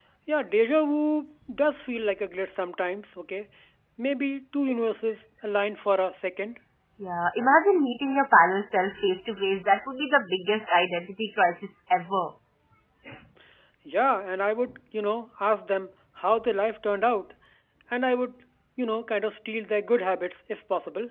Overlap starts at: none

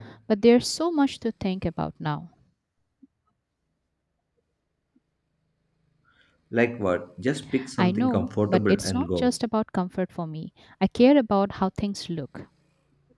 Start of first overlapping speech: 7.8 s

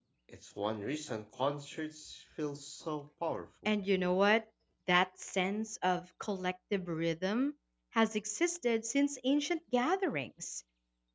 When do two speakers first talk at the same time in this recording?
none

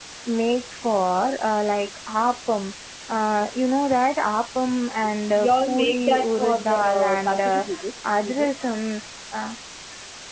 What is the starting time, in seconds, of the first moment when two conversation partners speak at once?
5.4 s

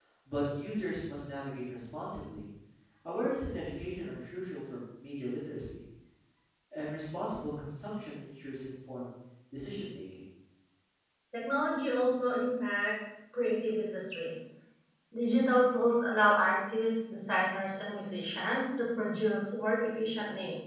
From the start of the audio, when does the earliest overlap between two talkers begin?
none

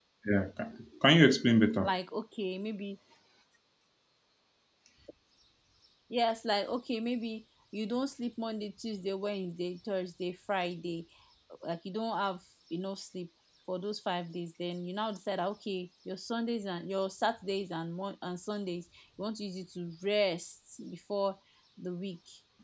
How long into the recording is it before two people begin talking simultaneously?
none

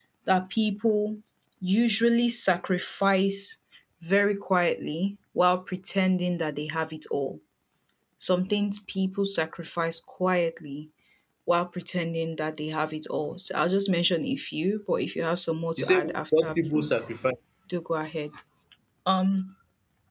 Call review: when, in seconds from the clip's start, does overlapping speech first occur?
15.8 s

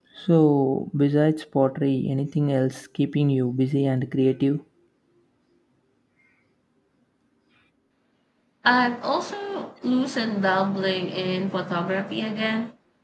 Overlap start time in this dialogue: none

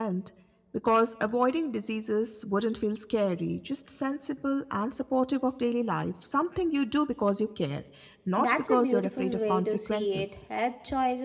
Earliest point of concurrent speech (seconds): 8.4 s

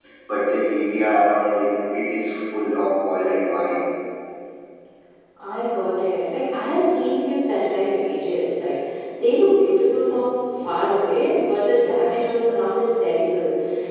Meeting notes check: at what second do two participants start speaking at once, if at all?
none

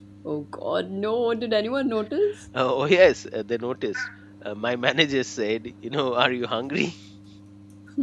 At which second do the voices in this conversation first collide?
none

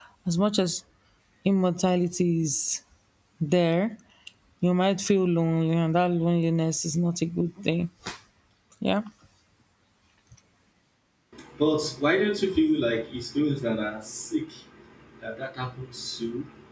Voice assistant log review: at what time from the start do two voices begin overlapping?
none

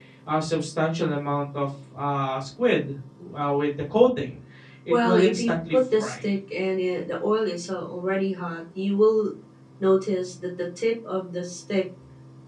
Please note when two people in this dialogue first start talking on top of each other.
4.9 s

